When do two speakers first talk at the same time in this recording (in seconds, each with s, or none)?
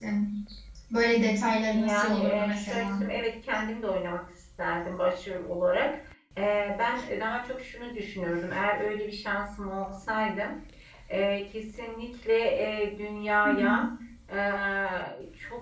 1.7 s